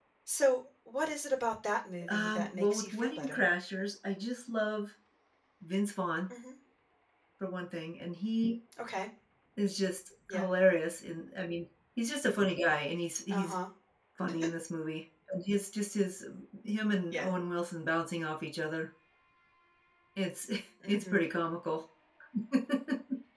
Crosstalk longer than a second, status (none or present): present